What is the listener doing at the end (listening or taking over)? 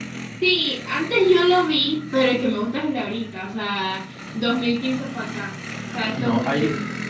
taking over